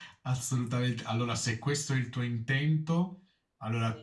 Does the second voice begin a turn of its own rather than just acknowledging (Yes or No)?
No